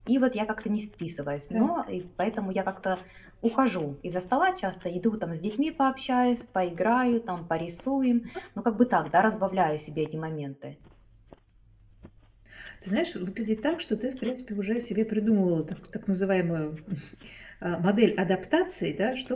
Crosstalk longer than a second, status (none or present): none